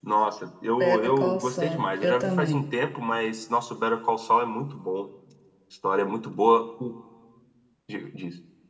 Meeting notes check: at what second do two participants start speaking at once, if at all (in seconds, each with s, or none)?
0.8 s